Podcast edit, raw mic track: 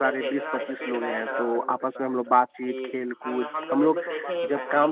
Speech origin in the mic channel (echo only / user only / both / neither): both